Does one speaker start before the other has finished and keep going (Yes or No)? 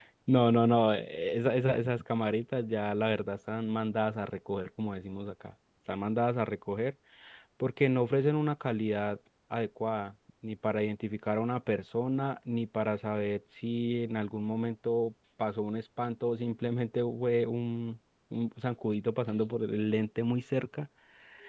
No